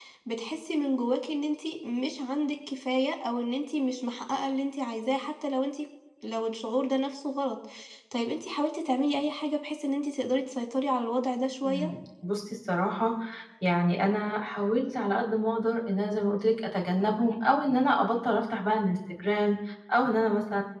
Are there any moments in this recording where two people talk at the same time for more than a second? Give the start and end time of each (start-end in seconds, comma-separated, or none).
none